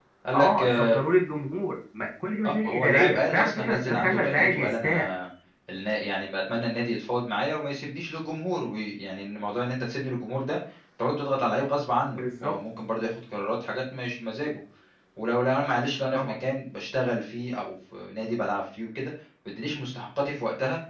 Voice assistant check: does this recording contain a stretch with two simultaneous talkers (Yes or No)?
Yes